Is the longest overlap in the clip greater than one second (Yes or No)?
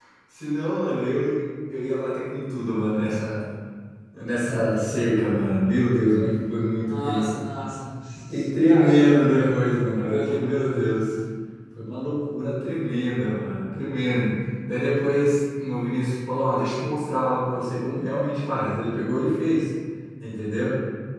Yes